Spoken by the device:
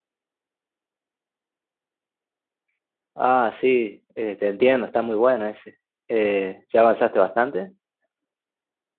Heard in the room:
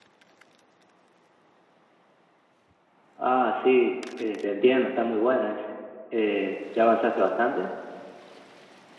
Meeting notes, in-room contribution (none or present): none